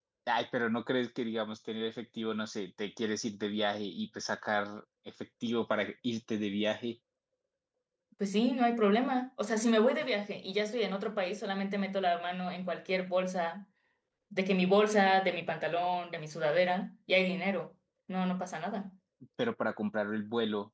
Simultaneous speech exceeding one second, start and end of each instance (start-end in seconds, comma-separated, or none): none